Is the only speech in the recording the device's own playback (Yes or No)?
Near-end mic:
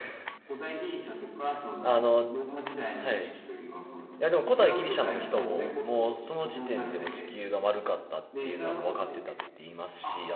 No